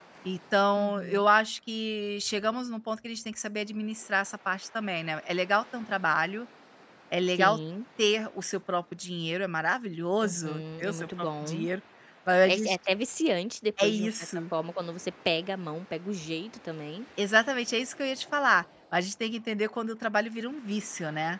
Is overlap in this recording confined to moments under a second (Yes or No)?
No